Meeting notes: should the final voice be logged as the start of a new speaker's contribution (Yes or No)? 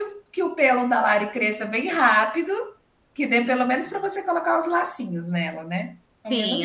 Yes